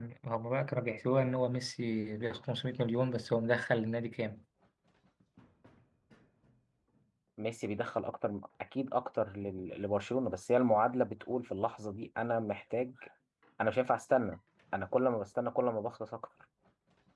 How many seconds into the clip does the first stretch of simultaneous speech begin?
none

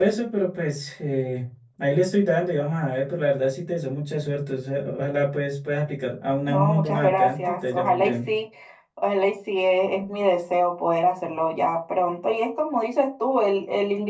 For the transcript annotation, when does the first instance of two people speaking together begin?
6.5 s

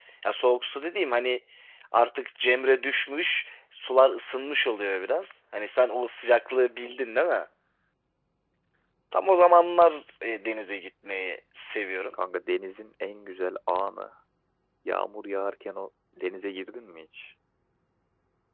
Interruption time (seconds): none

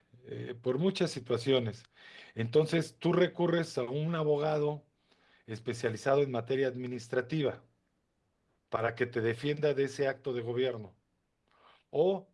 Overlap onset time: none

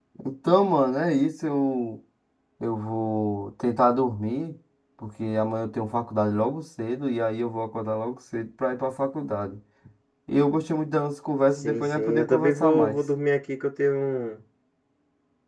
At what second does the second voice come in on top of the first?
11.6 s

